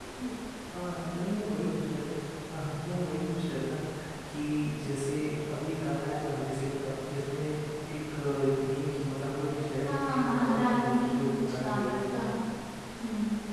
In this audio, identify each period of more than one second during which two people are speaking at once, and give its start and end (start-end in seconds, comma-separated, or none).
9.8-12.2